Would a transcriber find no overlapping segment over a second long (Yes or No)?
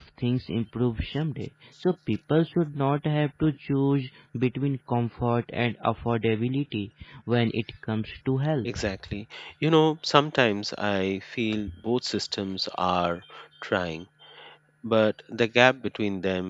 Yes